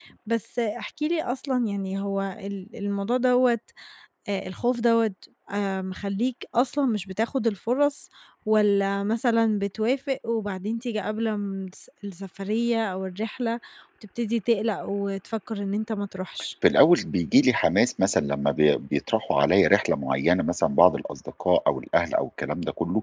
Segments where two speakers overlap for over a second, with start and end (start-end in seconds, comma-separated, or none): none